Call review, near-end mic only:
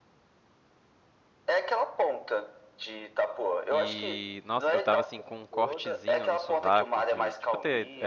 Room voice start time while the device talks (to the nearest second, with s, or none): 4 s